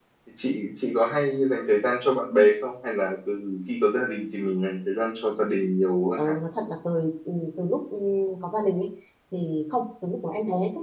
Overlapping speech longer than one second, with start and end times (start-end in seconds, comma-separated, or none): none